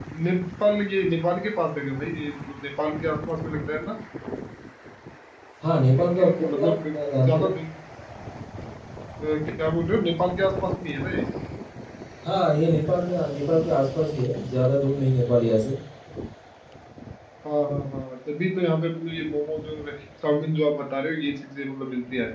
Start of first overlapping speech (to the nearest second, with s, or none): 6 s